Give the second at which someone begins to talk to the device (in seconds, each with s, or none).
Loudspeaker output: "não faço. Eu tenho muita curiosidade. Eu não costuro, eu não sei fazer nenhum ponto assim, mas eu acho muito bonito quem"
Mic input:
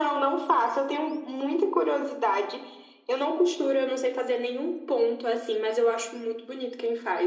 none